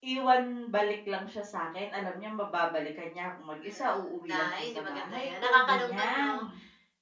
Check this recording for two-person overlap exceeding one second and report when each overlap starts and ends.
3.6-6.4

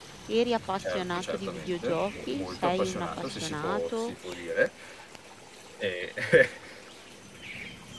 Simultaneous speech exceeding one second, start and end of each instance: 0.9-4.1

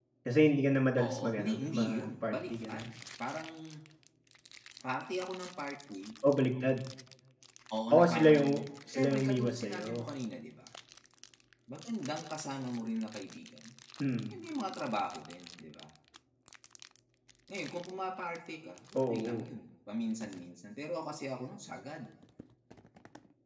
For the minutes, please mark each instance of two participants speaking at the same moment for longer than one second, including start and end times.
1.0-2.9, 7.9-10.1

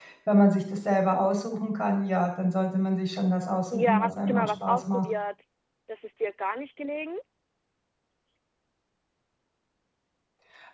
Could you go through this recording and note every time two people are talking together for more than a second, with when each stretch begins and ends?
3.7-5.0

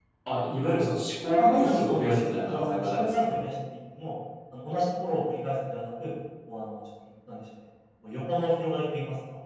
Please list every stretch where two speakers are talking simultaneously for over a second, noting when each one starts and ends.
1.4-3.4

